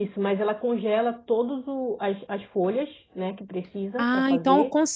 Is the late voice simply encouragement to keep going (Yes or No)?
No